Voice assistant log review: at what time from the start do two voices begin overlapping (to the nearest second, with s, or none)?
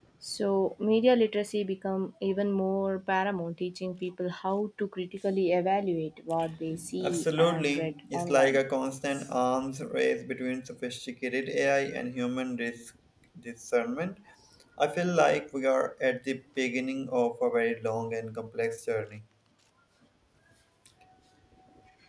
7 s